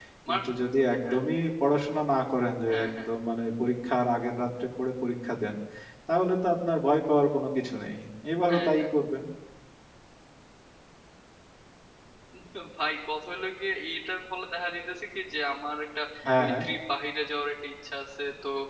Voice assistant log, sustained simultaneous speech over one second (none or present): none